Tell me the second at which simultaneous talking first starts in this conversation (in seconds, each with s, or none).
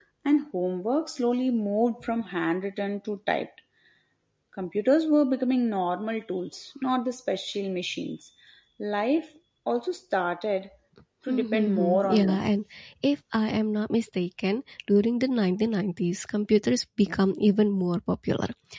11.3 s